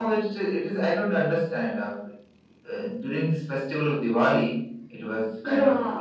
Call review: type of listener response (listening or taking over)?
listening